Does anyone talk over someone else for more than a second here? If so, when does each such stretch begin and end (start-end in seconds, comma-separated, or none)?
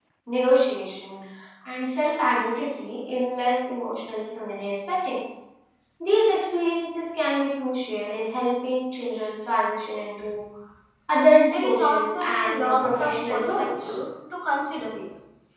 11.4-13.9